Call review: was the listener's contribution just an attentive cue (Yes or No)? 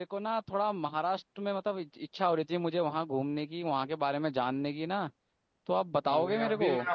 No